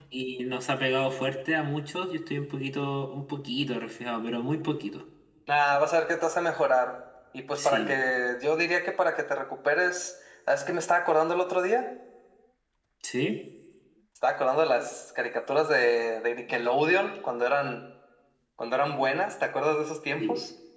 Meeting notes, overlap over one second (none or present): none